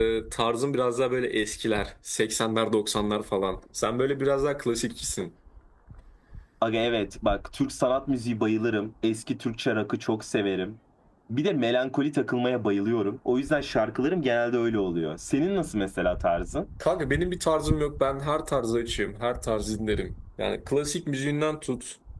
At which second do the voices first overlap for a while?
none

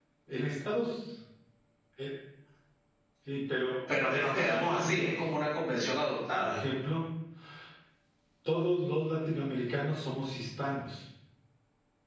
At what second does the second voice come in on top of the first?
4.0 s

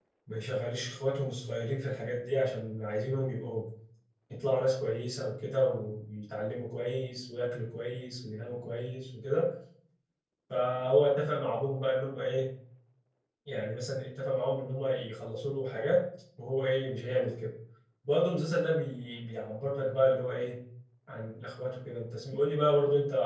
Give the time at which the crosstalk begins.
none

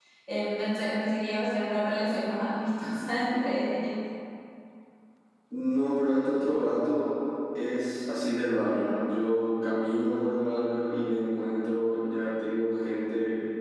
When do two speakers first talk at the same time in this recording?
none

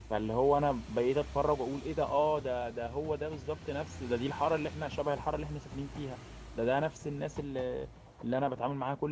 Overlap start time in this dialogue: none

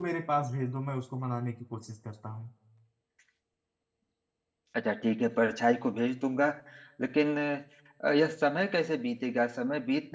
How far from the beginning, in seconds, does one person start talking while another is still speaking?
none

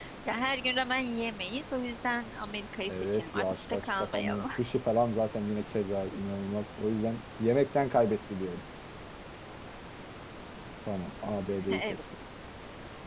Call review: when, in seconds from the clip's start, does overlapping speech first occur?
2.9 s

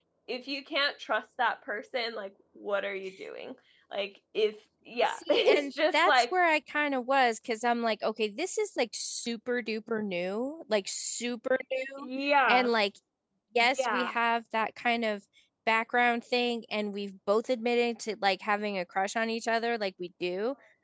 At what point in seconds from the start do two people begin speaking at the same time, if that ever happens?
5.1 s

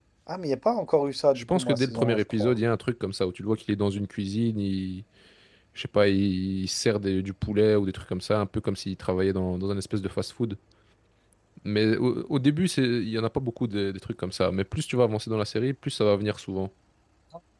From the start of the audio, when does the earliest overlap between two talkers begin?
1.4 s

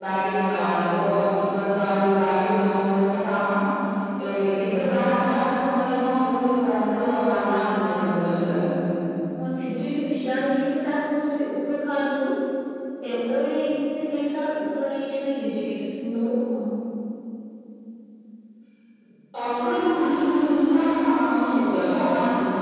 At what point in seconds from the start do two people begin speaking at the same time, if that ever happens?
none

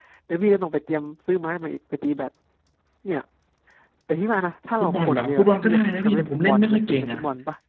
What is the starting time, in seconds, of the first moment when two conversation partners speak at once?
4.8 s

